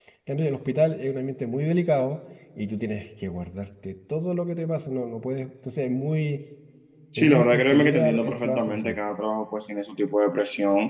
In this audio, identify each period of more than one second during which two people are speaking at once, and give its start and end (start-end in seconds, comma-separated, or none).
7.2-9.0